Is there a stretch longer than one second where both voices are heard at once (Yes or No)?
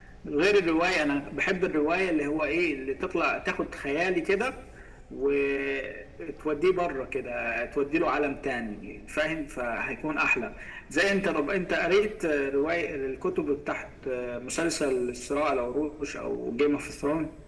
No